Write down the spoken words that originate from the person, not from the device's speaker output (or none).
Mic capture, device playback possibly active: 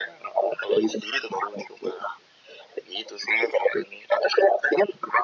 none